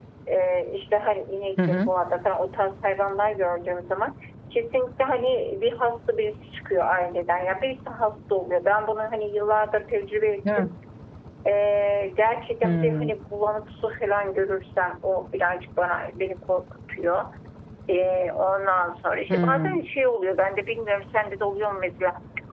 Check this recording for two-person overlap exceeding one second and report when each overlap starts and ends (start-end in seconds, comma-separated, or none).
none